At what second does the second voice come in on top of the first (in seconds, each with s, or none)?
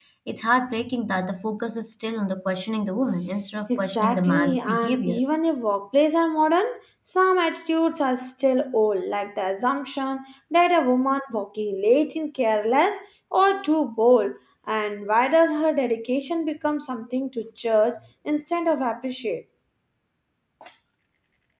3.7 s